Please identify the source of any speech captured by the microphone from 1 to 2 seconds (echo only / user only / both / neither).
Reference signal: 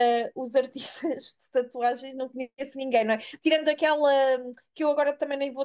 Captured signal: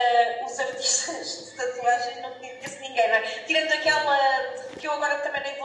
echo only